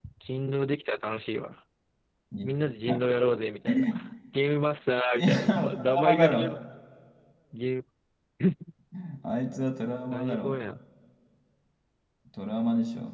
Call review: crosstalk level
present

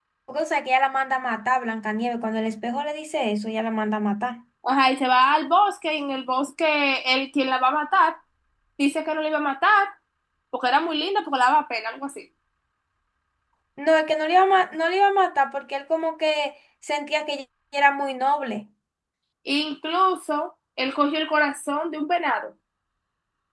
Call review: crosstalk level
none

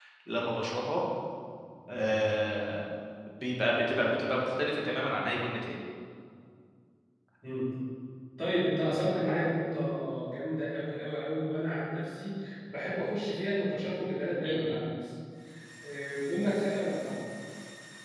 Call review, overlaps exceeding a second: none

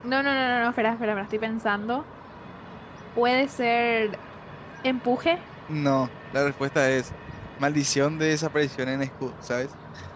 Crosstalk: none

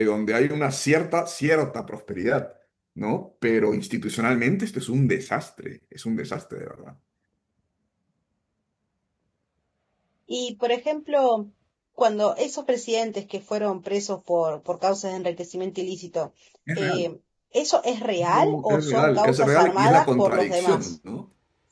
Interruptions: present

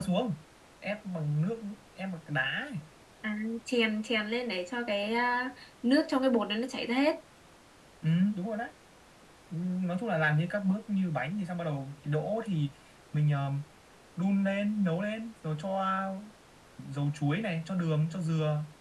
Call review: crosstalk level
none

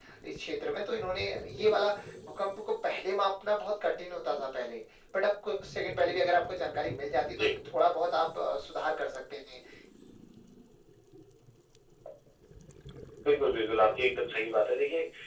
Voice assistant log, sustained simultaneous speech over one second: none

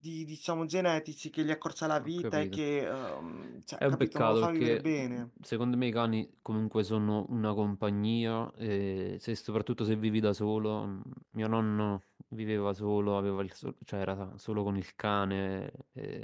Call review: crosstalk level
present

